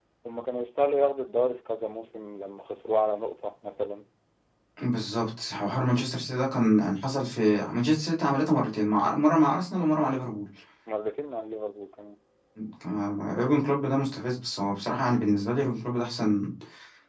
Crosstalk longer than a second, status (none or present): none